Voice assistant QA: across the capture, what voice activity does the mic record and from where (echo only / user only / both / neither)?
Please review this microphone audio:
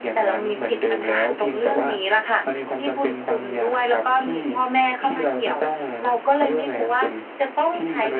echo only